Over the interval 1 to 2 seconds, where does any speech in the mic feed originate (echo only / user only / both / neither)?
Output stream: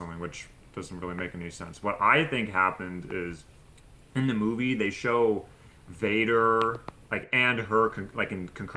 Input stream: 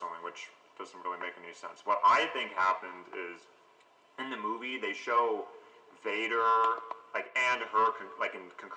echo only